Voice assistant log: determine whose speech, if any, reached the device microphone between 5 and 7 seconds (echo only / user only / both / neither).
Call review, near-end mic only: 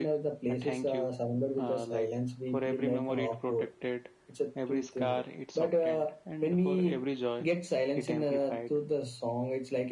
echo only